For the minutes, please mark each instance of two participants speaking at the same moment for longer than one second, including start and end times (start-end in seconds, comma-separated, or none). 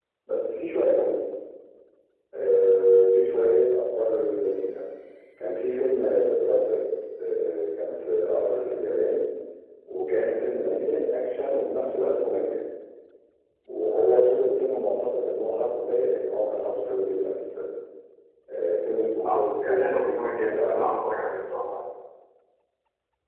19.2-20.9